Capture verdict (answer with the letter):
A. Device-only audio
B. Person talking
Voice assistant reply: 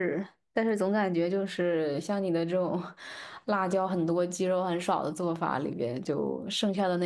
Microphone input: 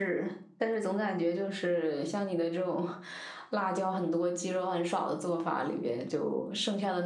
A